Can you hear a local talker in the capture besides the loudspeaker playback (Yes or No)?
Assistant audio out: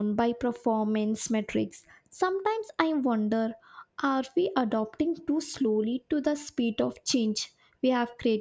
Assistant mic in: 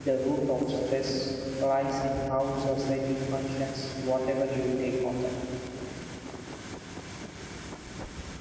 Yes